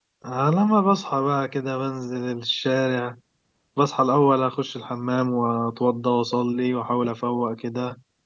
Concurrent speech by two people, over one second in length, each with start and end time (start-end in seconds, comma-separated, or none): none